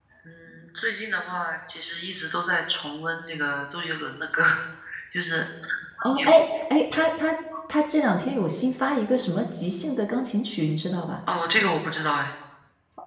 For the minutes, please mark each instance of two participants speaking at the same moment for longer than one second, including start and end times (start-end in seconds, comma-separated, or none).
none